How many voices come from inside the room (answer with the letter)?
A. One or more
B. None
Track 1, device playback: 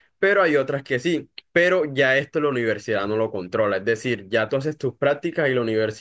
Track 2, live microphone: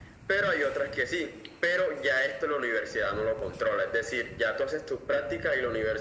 B